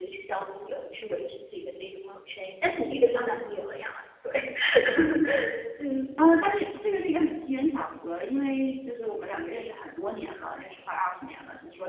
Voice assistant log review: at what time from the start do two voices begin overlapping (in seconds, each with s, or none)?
none